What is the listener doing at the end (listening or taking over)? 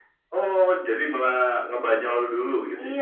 taking over